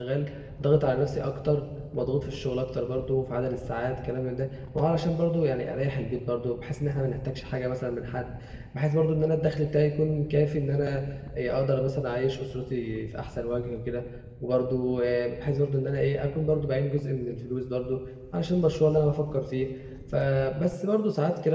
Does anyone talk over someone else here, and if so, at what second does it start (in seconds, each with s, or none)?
none